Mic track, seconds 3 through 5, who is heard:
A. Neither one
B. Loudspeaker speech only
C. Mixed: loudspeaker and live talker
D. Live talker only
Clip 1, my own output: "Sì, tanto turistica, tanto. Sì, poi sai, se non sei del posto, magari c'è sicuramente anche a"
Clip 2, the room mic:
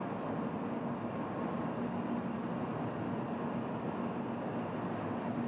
A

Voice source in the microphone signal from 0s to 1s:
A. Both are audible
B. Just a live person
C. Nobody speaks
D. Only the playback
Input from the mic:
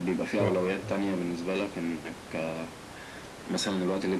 A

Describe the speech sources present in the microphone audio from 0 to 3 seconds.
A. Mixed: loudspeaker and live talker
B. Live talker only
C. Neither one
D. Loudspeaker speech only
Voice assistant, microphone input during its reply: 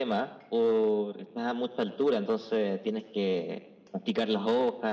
D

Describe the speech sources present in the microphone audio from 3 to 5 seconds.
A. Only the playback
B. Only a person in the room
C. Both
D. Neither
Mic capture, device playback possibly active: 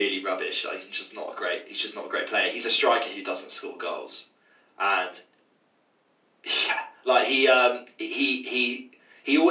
A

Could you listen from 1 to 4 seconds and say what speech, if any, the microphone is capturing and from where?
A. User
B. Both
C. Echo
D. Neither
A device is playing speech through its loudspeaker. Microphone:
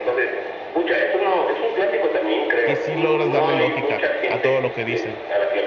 B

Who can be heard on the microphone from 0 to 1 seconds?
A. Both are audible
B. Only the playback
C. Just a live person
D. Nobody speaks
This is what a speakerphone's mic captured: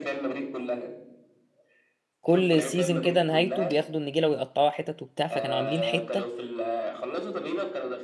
B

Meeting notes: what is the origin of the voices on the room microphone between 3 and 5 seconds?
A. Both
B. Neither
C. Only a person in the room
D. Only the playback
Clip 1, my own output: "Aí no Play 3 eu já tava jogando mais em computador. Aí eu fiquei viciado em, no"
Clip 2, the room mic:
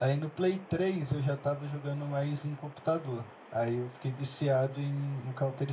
D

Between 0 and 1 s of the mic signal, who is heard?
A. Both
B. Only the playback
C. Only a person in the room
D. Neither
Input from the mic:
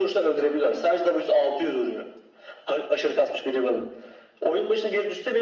B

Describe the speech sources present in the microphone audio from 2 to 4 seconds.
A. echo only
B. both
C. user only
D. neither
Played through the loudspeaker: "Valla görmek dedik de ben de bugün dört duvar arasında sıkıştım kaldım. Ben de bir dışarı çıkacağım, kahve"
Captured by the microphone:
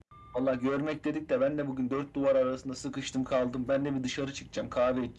A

